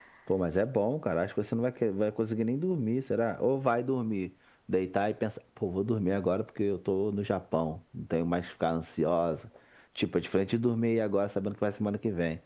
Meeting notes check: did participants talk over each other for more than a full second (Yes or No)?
No